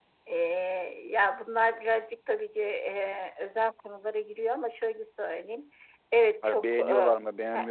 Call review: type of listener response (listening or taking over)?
taking over